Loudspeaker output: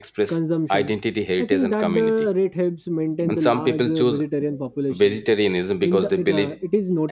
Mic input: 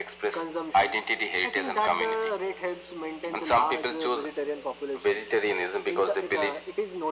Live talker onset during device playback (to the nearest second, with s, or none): none